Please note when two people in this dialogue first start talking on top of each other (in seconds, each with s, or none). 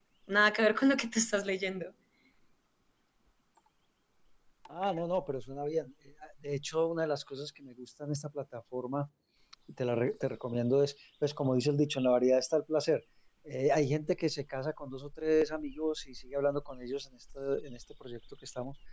none